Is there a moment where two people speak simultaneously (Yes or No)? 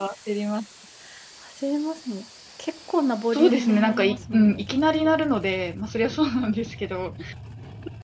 Yes